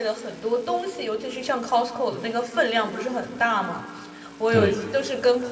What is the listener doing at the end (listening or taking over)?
listening